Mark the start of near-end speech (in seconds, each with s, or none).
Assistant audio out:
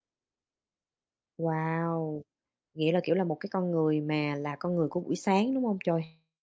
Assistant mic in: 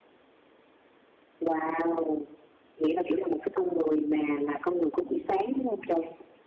none